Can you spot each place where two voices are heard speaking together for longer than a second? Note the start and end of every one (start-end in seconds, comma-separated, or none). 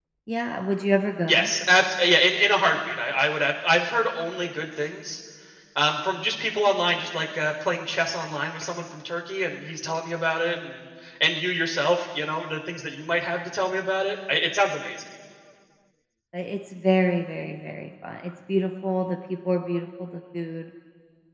none